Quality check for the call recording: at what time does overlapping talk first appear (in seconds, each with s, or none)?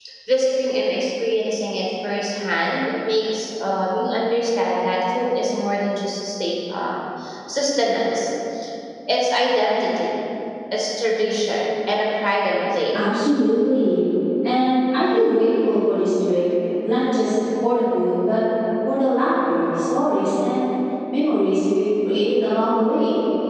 none